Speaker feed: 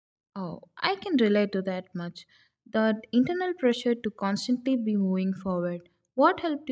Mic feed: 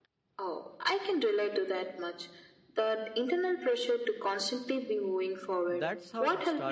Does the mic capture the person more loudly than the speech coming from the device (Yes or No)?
No